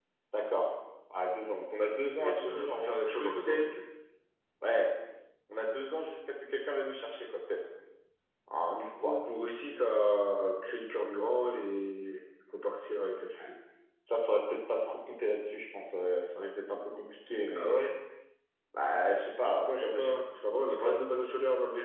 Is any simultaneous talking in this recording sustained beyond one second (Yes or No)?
Yes